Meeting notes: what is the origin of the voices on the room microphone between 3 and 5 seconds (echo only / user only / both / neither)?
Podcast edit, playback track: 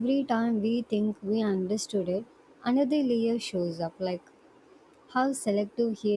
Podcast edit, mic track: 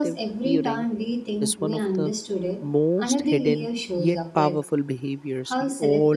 both